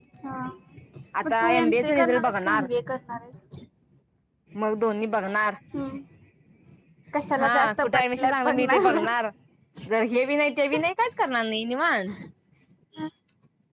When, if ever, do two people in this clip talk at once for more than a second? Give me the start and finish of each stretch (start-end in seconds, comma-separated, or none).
1.2-2.7, 7.4-9.0